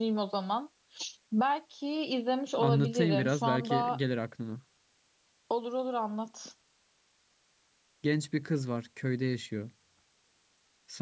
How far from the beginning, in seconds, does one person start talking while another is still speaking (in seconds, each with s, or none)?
2.6 s